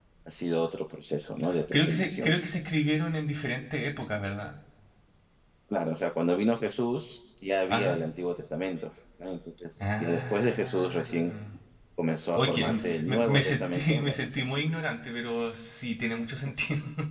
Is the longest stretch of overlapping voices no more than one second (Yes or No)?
No